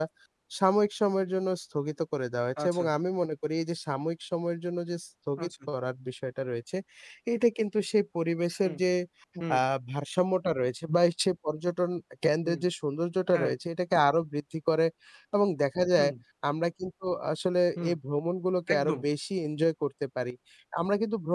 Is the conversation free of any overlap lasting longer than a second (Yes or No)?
Yes